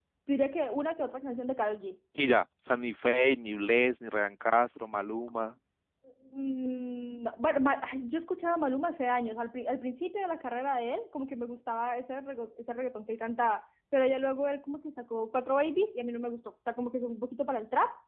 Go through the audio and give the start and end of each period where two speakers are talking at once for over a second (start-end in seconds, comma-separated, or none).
none